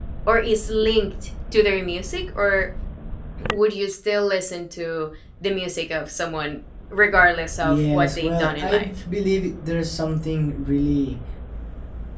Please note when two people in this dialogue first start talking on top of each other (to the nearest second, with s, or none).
8 s